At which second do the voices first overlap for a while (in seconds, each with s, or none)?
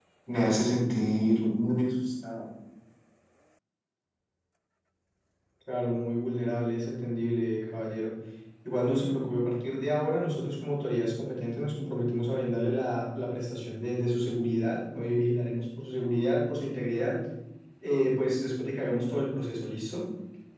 none